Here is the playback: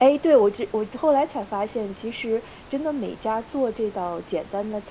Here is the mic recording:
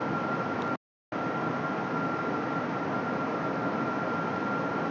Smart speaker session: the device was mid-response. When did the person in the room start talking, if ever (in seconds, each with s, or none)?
none